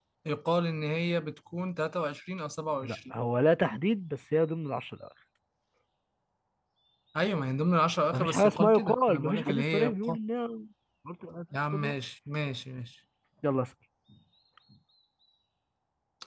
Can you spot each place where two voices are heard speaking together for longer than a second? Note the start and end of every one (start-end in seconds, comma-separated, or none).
8.1-10.2